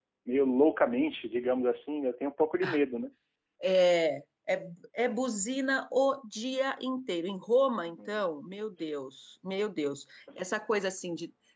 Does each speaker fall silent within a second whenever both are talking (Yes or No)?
Yes